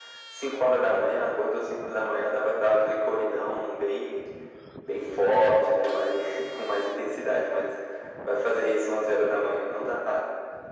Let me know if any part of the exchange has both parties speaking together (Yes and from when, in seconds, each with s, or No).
No